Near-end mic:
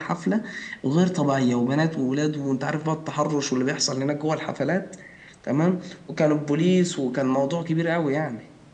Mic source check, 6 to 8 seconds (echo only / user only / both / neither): echo only